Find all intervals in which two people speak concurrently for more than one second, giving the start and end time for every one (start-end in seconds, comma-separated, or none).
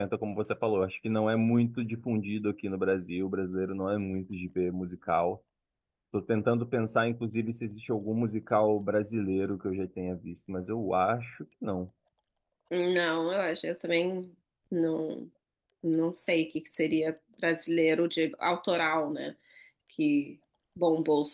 none